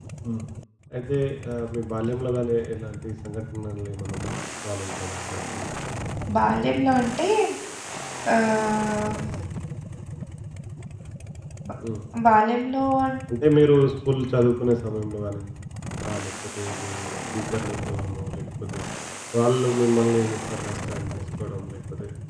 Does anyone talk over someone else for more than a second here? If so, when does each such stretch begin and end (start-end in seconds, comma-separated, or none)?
none